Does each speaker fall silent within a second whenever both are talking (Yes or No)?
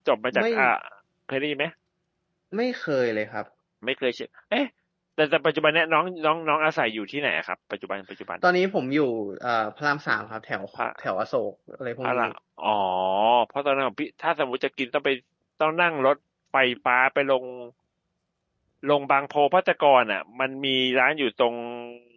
Yes